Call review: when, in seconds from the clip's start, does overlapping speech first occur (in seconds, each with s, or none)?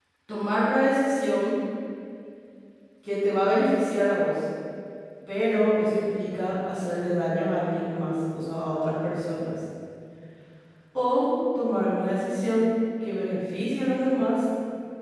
none